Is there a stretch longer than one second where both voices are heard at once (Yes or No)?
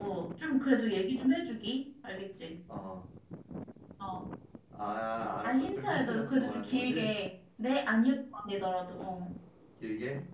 Yes